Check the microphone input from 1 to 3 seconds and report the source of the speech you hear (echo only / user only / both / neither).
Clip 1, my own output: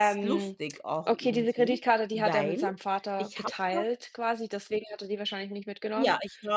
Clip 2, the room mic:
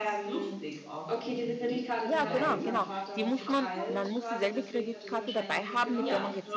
both